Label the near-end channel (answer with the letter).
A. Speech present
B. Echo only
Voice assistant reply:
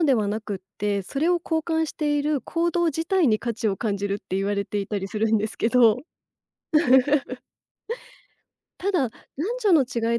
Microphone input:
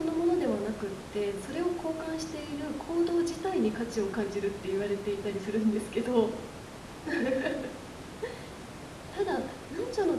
B